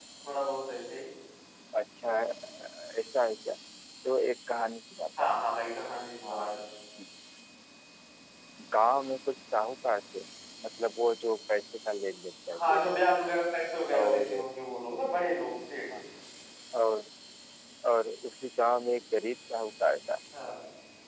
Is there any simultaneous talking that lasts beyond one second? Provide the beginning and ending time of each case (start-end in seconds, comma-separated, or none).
none